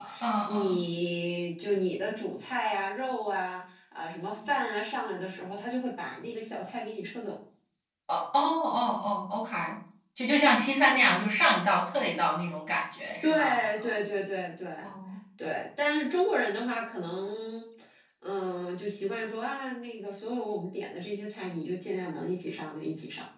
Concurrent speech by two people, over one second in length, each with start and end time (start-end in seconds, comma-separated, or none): none